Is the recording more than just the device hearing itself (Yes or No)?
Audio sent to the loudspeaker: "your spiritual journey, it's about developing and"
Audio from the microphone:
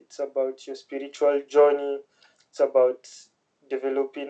No